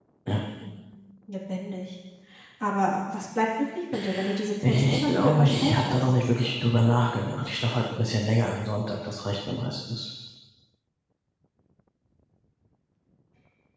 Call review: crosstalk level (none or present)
present